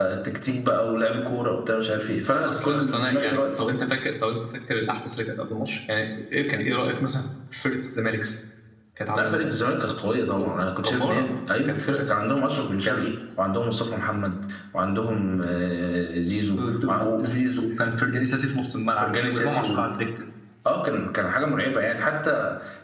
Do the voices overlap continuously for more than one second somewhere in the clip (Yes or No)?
Yes